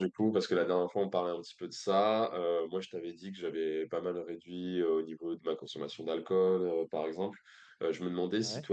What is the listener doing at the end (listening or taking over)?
listening